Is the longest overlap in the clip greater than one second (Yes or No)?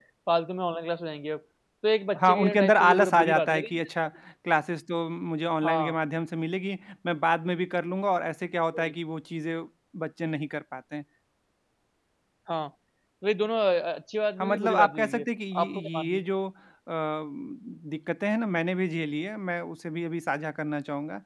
Yes